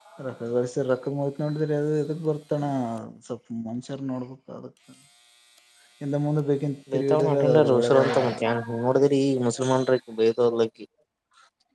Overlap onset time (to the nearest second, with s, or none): 7 s